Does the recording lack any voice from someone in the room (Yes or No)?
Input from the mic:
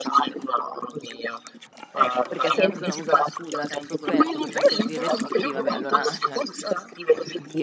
No